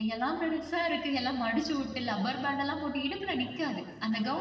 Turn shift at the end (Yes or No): No